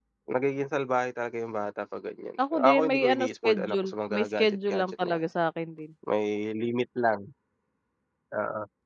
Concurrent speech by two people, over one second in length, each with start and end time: 2.5-5.2

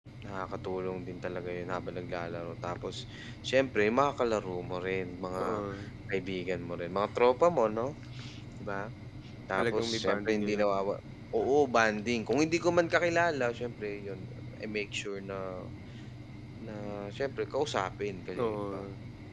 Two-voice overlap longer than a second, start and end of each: 9.6-10.8

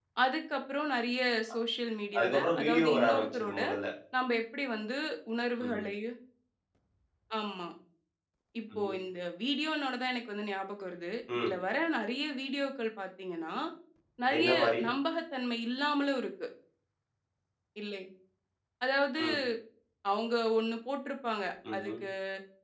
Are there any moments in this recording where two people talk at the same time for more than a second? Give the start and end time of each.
2.2-3.6

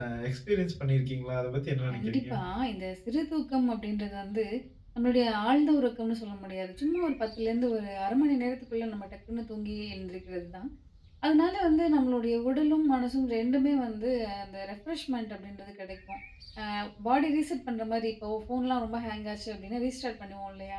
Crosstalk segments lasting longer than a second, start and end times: none

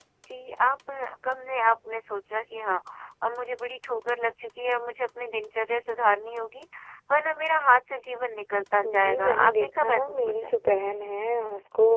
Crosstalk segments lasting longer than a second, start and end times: 8.8-10.5

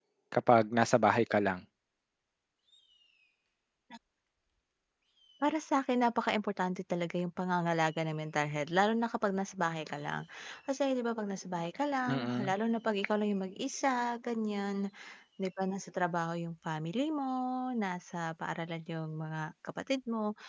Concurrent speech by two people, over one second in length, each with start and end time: none

